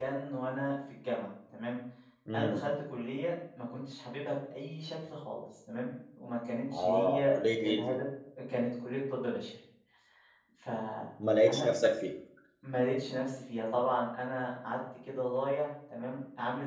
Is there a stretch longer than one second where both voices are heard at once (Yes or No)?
Yes